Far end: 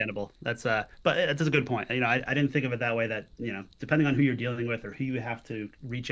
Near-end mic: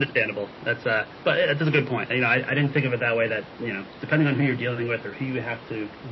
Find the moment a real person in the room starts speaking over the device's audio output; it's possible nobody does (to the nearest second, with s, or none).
none